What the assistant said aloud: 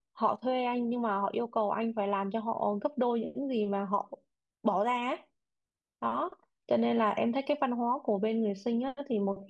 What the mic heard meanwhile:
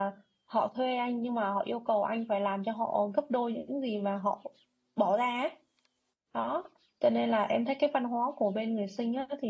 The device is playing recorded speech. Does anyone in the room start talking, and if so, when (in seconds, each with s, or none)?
none